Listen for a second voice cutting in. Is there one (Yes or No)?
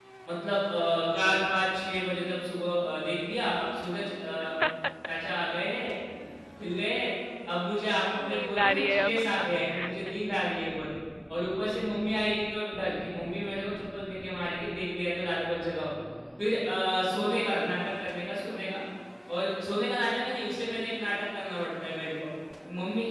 Yes